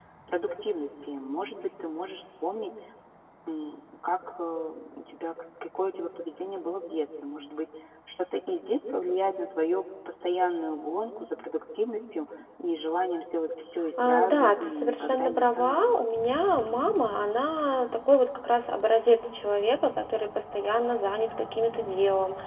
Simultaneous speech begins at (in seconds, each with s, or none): 14.0 s